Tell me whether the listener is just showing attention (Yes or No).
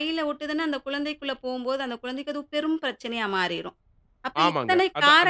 No